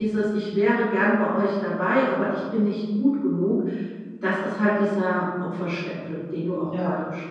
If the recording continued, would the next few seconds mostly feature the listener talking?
Yes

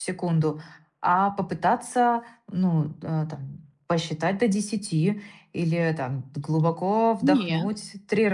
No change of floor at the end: Yes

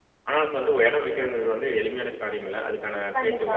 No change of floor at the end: Yes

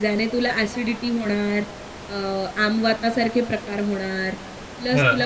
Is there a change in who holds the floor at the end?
No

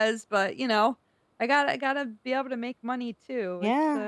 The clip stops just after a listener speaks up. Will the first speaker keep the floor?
No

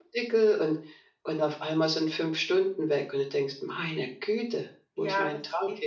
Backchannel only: No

